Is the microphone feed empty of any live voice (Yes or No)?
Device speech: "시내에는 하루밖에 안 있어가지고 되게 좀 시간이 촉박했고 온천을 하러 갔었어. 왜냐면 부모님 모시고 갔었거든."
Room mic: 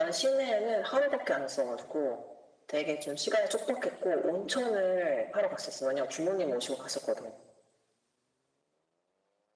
Yes